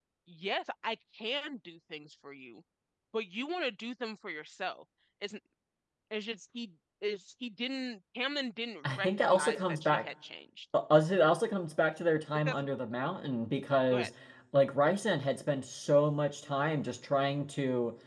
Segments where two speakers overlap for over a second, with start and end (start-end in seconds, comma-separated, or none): 8.8-10.0